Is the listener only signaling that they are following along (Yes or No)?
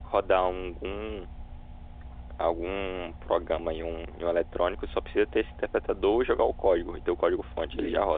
No